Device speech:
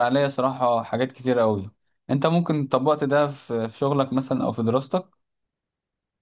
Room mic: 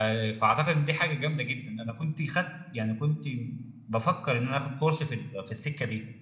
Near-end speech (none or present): present